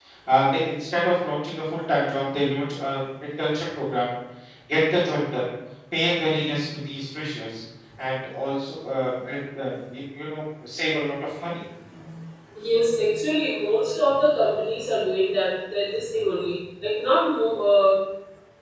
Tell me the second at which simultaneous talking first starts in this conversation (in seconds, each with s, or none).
none